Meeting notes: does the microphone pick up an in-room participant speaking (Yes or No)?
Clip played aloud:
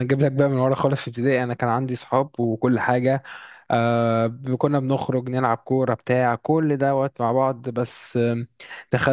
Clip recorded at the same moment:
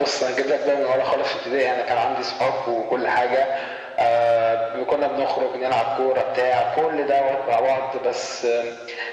No